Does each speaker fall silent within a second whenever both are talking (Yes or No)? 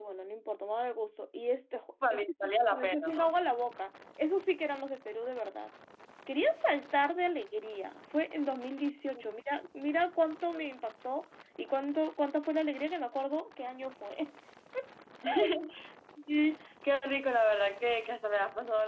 No